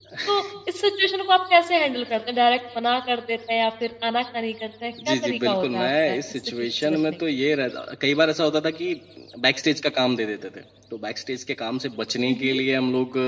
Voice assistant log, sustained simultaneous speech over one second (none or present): present